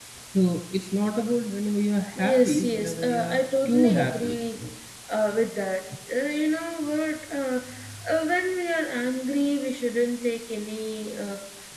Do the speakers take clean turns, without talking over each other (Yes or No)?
No